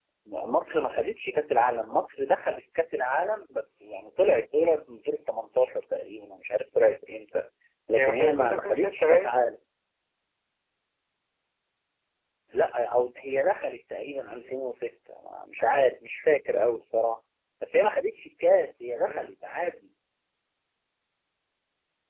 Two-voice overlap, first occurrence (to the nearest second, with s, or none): 8 s